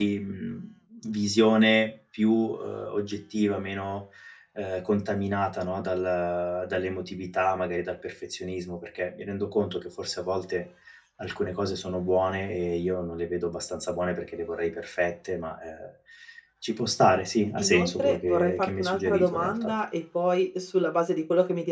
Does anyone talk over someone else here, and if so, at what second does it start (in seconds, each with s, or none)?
17.6 s